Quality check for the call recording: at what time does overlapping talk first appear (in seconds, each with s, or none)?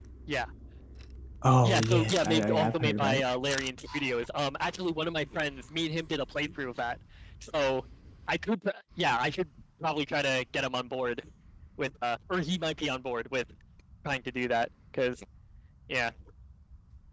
1.6 s